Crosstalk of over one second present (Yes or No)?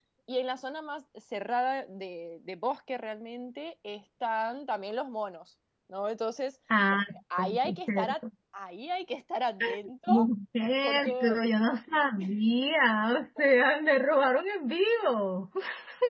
Yes